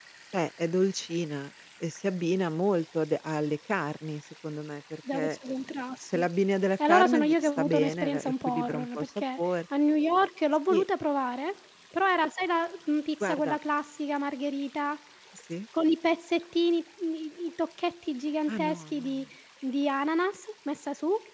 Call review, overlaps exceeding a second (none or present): present